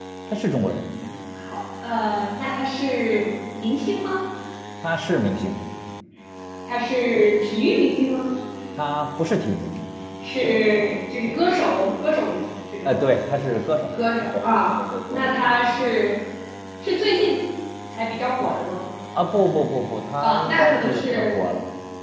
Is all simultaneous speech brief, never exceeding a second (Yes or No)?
No